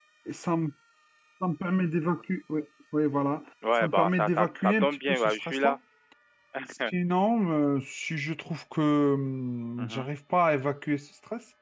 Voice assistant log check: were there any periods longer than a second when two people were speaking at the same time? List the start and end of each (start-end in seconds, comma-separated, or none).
3.8-5.8